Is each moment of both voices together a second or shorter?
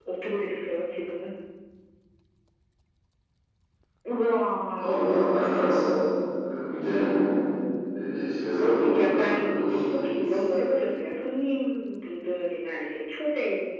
No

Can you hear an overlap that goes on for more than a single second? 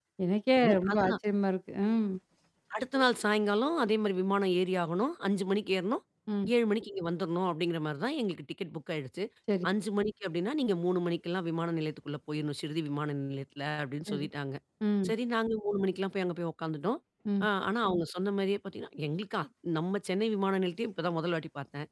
No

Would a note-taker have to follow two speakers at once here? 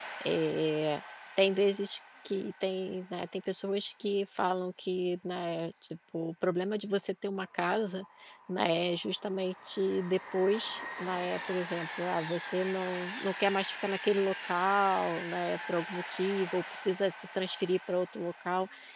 No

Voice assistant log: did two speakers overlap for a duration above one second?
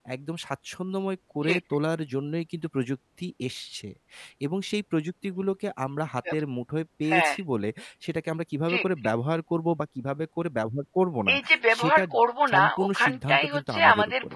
Yes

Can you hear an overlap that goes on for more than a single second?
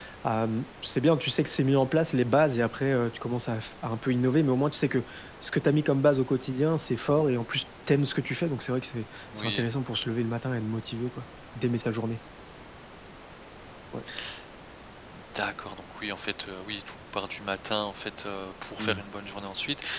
No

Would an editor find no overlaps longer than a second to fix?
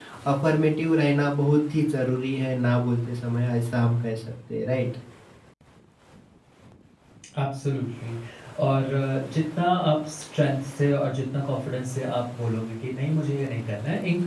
Yes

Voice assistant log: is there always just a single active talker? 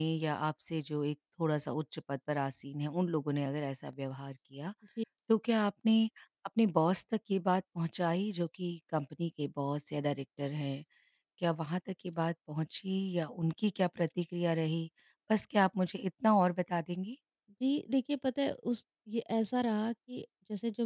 Yes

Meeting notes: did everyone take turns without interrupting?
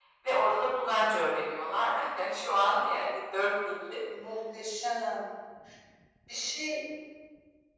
Yes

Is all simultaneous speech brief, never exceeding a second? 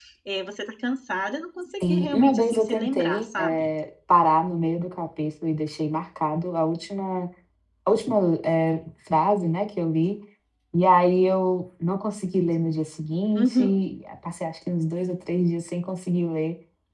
No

